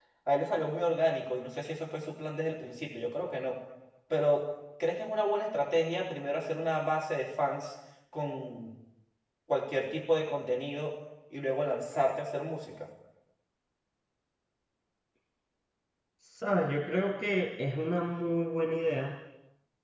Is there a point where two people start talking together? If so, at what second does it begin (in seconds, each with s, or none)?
none